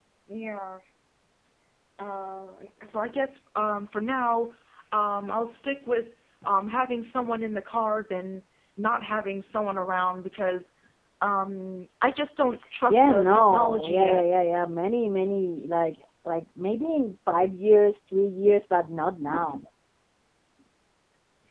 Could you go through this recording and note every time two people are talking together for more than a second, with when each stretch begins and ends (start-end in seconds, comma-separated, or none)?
12.9-14.2